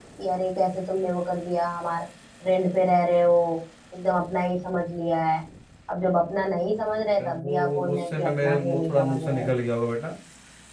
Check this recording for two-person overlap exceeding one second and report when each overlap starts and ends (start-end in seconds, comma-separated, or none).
6.8-9.5